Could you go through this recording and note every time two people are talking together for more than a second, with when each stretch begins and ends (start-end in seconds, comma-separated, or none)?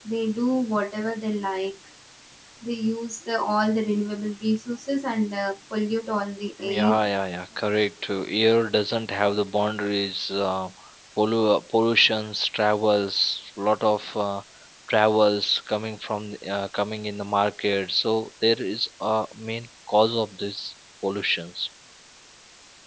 none